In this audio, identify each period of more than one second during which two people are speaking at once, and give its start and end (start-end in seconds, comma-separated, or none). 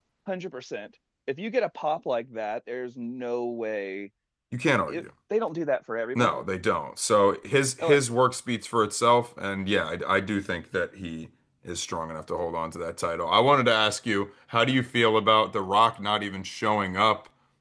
none